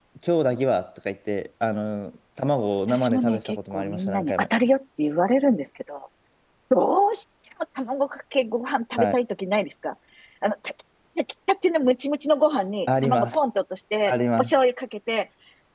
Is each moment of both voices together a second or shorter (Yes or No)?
No